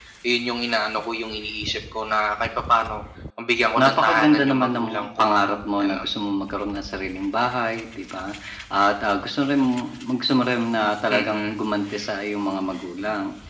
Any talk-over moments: Yes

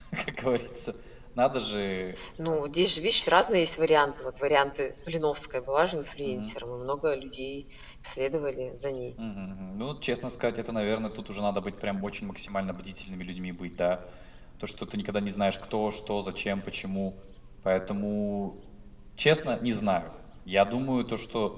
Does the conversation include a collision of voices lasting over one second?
No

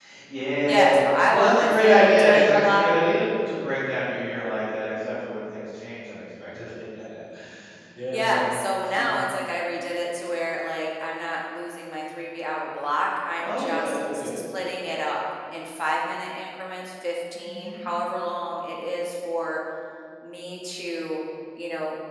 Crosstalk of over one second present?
Yes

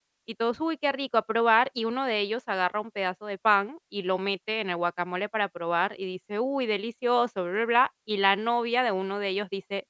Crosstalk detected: No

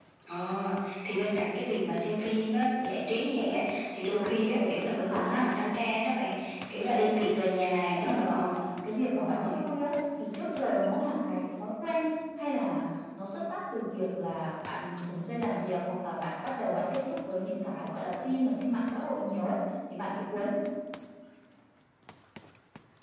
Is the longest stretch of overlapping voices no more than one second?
No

